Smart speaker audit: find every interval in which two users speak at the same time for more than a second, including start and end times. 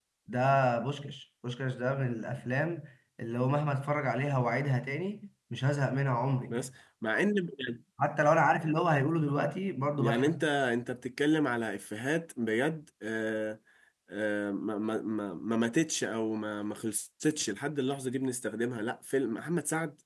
none

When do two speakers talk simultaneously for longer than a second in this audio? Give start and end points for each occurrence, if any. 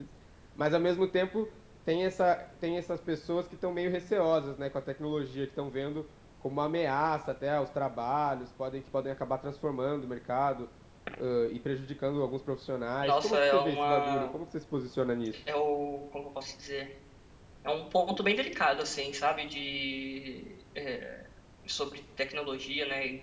13.0-14.3

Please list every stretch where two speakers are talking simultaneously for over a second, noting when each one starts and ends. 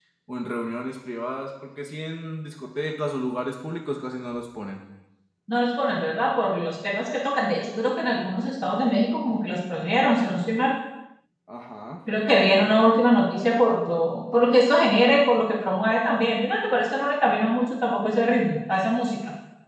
none

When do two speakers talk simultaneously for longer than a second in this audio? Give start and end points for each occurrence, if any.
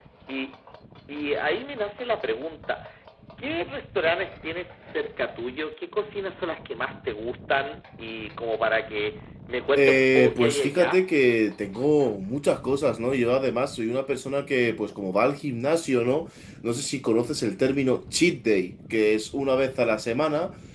9.8-11.1

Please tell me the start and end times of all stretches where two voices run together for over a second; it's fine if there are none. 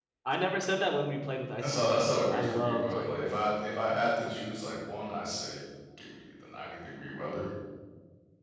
1.6-3.4

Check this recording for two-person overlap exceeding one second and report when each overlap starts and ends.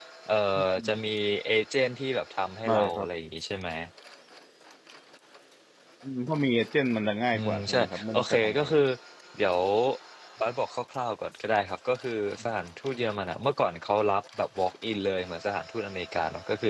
7.3-8.8

